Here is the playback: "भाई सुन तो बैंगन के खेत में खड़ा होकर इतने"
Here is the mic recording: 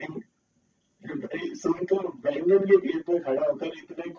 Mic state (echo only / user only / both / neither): echo only